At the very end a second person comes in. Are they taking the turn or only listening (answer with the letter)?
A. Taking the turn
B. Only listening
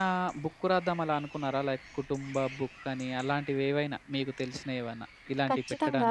A